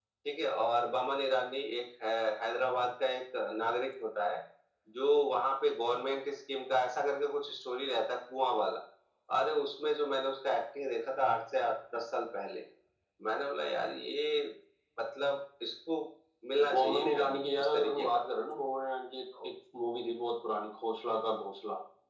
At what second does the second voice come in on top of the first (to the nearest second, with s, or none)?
17 s